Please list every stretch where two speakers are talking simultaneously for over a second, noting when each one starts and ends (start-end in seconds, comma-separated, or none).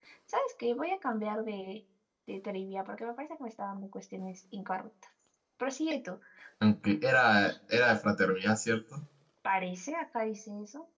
none